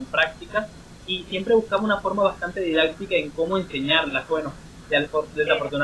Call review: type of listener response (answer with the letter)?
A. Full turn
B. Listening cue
B